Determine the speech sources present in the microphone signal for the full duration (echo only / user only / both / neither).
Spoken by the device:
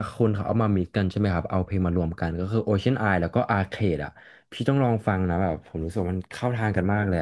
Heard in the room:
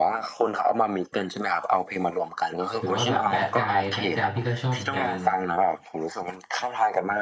both